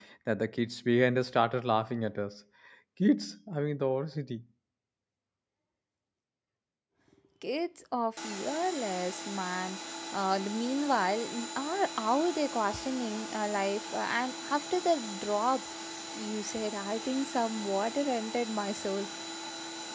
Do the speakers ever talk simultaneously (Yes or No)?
No